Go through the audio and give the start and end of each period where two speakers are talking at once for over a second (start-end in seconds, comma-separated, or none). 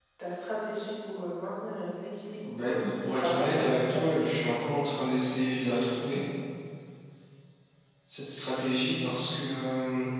2.6-4.4